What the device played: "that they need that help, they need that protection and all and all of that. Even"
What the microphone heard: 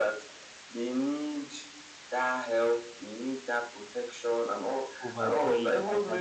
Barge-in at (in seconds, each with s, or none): 5.0 s